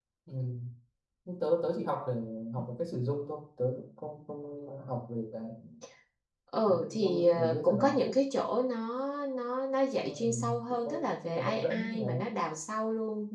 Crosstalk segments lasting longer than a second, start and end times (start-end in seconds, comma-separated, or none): 6.7-8.0, 10.0-12.0